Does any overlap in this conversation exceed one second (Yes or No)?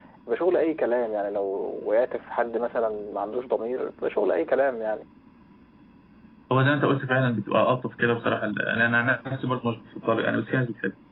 No